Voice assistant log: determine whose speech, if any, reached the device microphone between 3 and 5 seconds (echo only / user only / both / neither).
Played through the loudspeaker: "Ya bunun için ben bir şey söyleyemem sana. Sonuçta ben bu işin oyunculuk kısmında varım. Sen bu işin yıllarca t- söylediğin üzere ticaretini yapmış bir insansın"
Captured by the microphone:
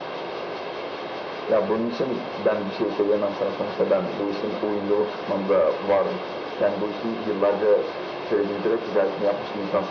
echo only